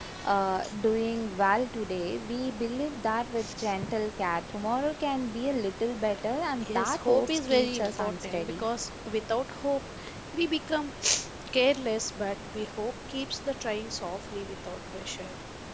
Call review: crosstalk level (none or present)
present